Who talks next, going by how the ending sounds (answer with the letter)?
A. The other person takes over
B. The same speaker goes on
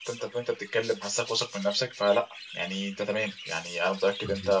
B